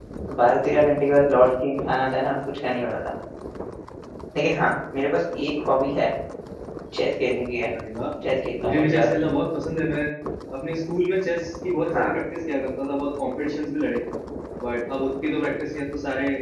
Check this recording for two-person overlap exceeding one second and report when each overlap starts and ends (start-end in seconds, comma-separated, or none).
none